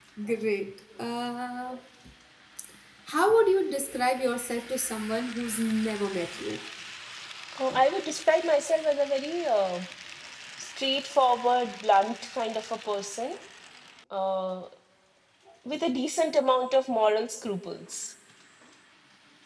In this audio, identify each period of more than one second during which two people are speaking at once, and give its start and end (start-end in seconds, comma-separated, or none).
none